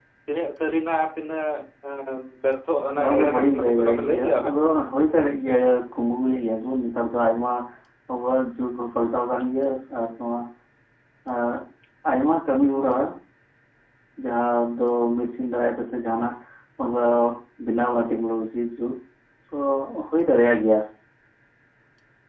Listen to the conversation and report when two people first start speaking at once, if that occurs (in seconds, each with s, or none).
3.0 s